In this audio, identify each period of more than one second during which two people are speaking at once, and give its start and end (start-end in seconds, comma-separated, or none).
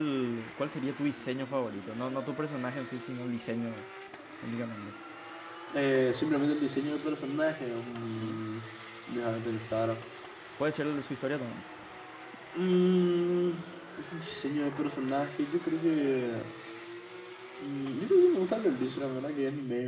none